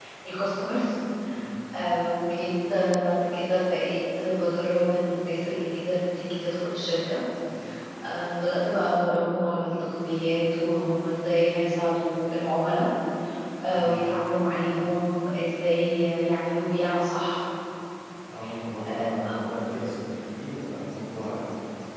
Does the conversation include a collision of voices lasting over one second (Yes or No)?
No